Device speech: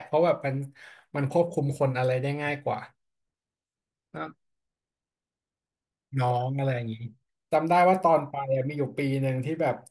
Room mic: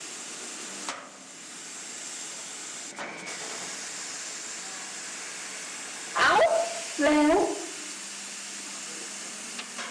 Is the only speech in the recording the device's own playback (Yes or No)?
No